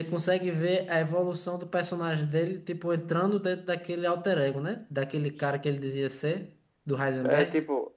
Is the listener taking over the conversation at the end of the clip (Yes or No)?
Yes